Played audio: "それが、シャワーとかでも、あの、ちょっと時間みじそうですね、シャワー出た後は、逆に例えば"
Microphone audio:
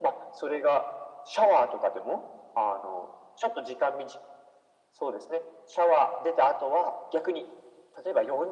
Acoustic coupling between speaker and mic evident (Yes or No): Yes